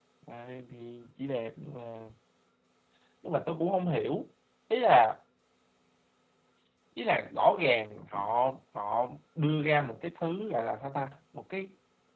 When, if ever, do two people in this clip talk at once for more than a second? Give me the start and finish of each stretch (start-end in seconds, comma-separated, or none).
none